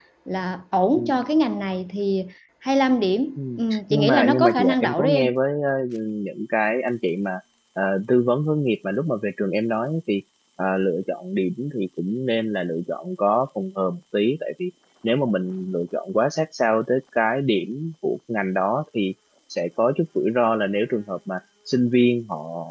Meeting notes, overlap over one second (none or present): present